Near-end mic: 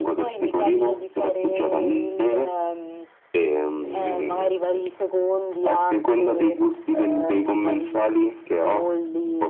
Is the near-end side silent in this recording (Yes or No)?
Yes